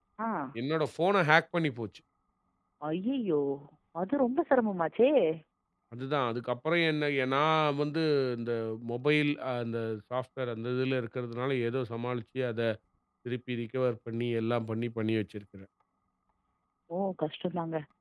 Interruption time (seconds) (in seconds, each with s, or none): none